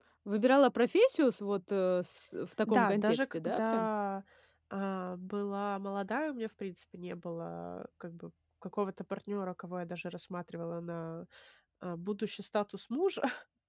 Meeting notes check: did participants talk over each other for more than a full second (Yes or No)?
Yes